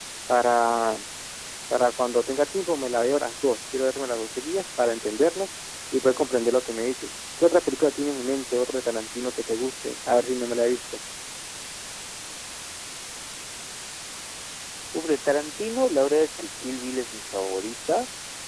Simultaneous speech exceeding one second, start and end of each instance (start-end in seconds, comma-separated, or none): none